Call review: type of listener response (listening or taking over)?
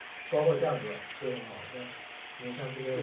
listening